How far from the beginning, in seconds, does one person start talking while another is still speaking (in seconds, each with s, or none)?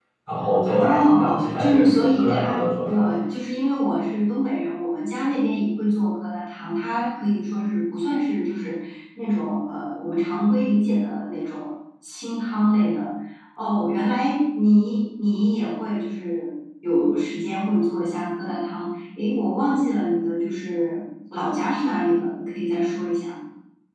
0.7 s